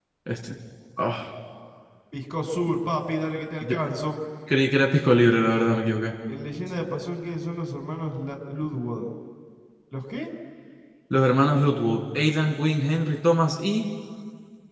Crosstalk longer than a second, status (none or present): none